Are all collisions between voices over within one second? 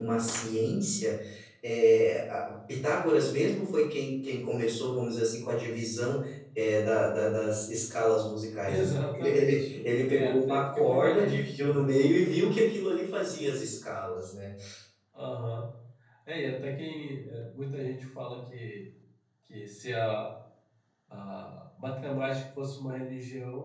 No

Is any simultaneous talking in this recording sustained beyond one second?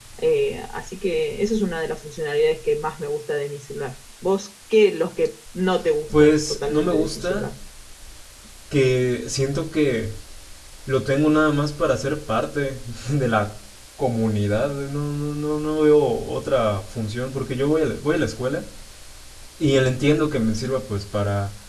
Yes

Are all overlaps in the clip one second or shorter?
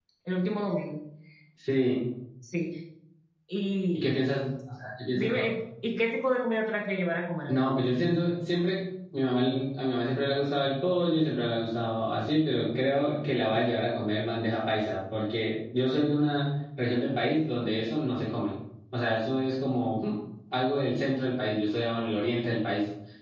Yes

